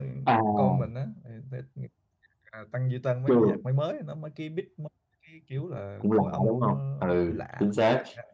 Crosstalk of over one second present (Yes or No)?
Yes